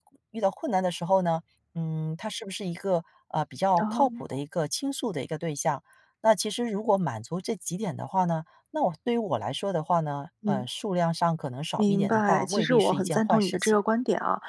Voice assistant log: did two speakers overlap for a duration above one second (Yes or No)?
Yes